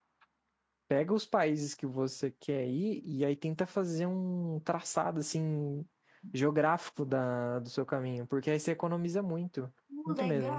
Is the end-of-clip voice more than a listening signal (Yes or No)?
Yes